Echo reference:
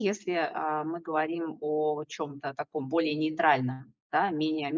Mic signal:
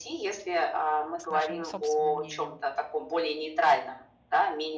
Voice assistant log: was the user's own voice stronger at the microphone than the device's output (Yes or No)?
No